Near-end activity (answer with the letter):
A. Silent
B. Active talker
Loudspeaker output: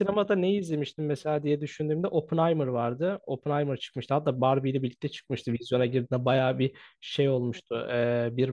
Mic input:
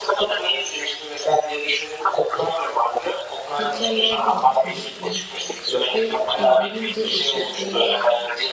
B